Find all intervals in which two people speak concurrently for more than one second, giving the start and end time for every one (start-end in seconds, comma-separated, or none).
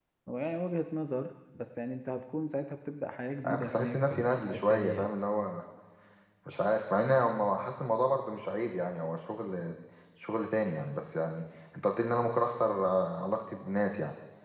3.4-5.1